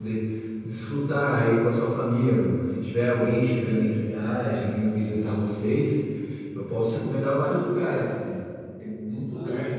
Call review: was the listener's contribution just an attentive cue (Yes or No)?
Yes